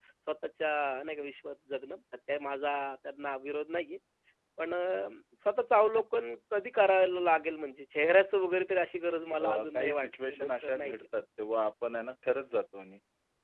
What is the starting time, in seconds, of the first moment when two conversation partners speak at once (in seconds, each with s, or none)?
9.4 s